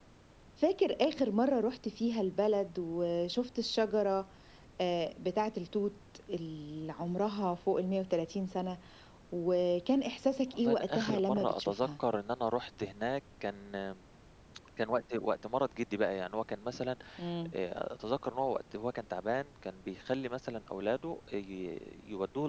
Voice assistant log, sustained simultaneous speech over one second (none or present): present